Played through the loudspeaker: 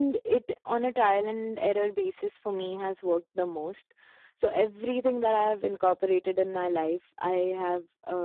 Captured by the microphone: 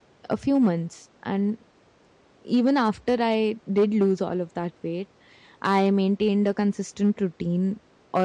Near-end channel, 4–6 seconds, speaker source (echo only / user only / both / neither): user only